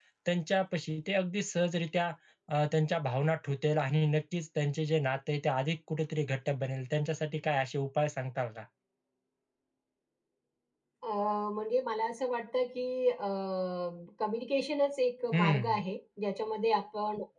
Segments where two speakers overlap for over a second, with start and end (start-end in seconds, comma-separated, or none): none